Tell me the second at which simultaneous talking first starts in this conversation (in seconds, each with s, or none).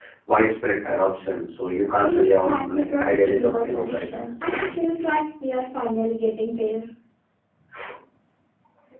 2.0 s